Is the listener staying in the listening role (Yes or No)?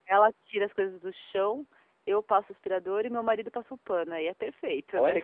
No